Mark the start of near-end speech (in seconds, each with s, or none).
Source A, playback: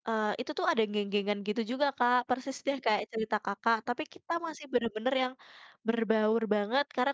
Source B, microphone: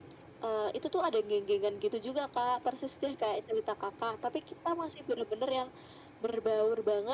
none